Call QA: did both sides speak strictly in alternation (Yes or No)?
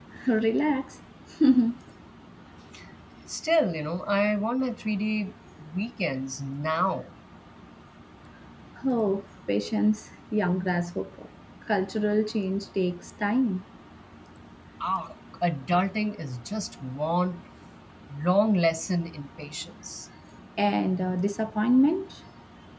Yes